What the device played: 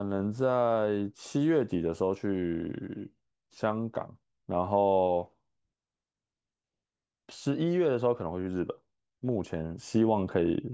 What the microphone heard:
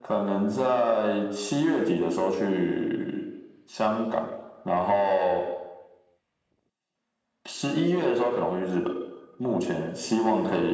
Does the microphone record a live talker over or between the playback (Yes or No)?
No